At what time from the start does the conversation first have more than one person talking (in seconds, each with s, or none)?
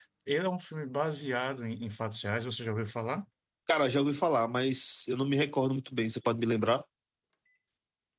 none